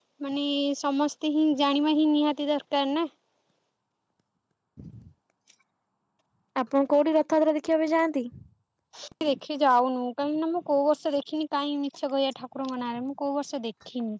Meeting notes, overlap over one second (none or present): none